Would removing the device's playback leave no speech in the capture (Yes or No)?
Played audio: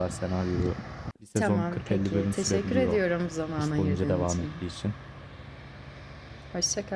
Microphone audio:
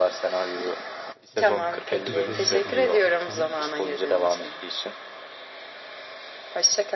No